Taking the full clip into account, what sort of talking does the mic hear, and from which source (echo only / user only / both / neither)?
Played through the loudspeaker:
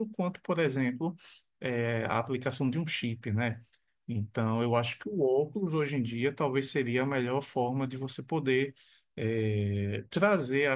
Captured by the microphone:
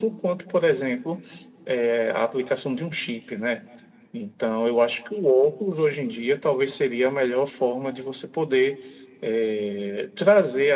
echo only